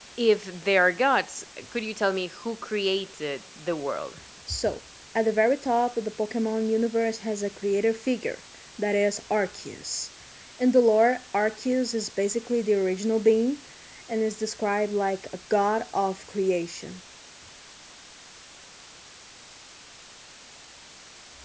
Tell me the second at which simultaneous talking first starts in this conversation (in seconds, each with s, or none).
none